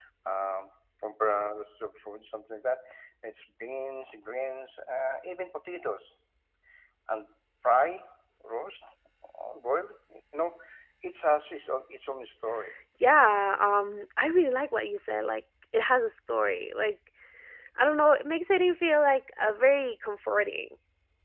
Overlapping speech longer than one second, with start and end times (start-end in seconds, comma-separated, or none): none